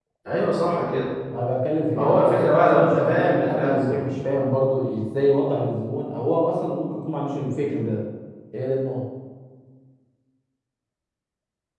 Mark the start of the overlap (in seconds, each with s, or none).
1.9 s